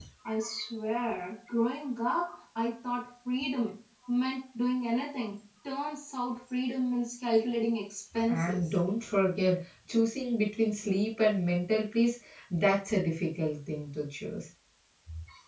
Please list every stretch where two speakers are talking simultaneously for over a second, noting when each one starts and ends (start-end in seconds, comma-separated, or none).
none